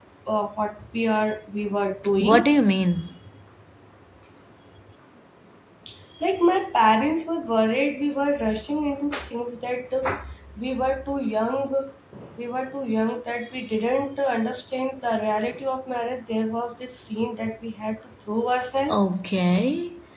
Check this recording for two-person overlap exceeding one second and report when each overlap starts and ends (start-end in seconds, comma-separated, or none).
none